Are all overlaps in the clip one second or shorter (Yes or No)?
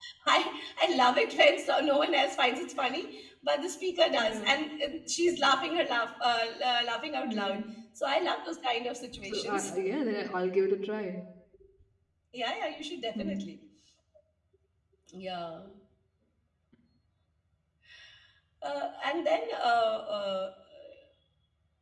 Yes